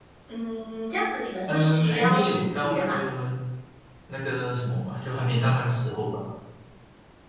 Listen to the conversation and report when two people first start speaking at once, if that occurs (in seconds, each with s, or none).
1.5 s